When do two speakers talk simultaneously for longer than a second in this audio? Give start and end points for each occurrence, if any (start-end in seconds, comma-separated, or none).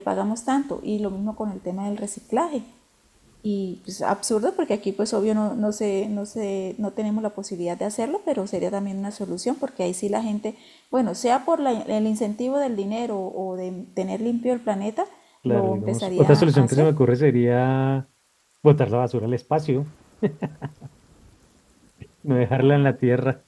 15.5-16.9